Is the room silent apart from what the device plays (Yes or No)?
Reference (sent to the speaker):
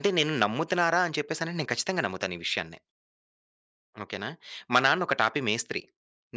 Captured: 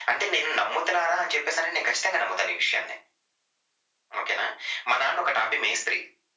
Yes